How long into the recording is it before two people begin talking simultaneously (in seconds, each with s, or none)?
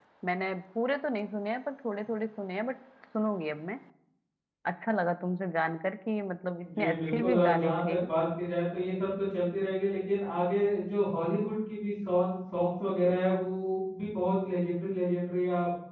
6.6 s